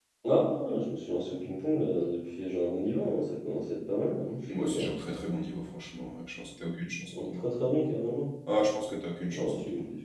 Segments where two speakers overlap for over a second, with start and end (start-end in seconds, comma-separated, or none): none